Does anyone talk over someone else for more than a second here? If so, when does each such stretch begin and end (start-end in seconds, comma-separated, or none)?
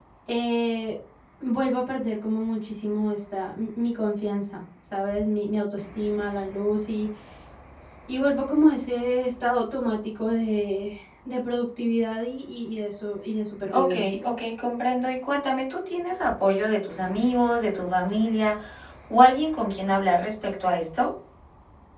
none